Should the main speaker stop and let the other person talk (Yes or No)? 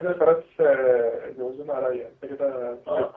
Yes